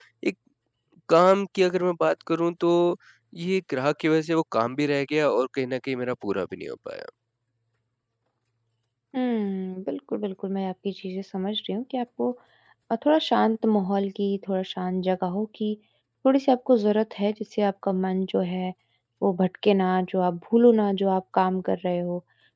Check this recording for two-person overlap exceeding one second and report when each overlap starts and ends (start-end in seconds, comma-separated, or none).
none